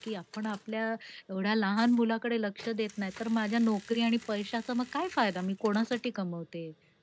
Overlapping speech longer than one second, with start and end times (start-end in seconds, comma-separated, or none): none